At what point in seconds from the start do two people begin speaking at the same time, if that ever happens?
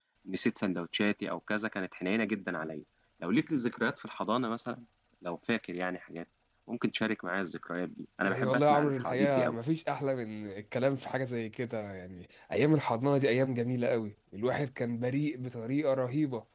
8.2 s

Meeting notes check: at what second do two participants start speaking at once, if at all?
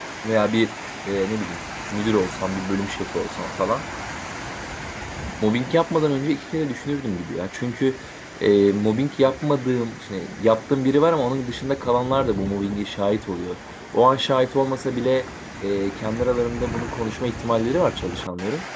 none

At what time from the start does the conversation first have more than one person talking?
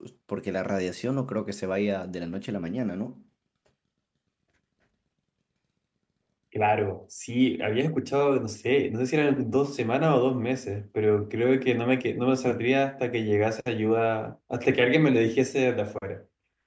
none

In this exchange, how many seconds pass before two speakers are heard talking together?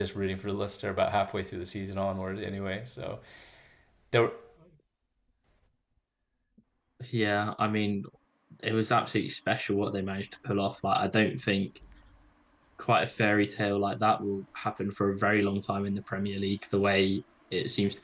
none

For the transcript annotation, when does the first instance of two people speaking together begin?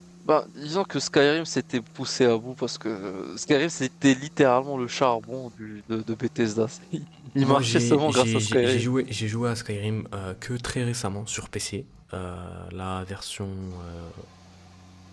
7.4 s

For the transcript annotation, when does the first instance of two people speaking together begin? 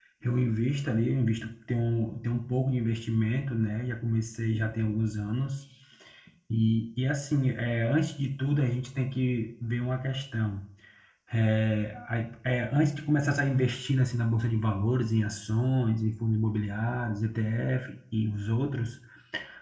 none

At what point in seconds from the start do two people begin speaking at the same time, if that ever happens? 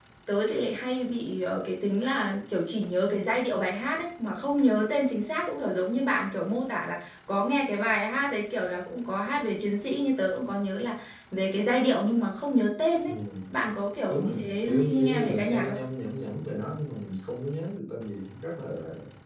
14.1 s

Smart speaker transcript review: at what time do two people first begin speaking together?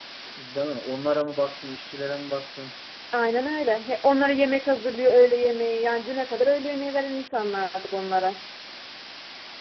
none

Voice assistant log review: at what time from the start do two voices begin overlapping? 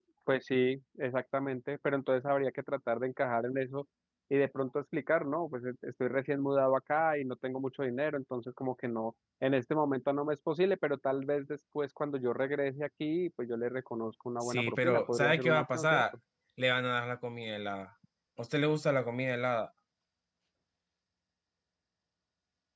14.4 s

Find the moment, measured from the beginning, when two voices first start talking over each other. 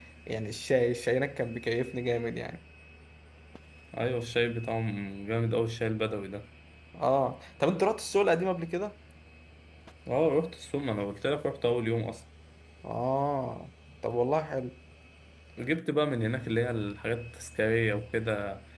none

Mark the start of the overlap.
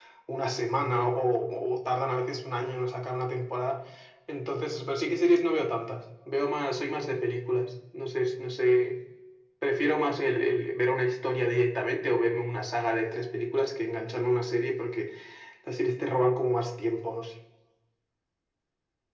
none

